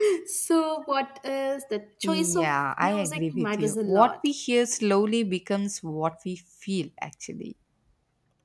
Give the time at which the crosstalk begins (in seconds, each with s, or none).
2.0 s